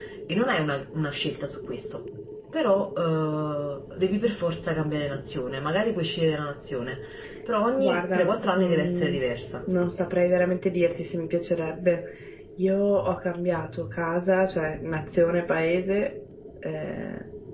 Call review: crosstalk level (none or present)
present